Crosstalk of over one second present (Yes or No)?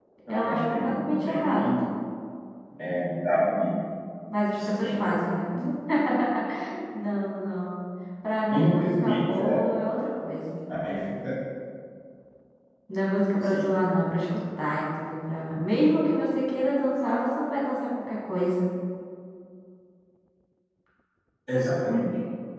Yes